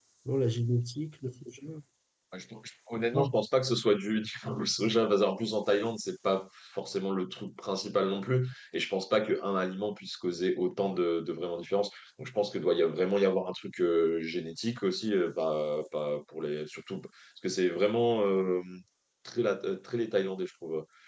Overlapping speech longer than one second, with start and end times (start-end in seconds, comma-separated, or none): none